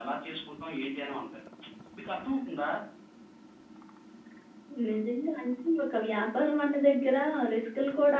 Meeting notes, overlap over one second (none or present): none